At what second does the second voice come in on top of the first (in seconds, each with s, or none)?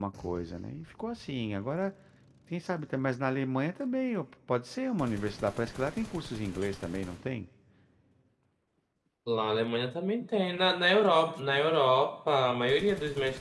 none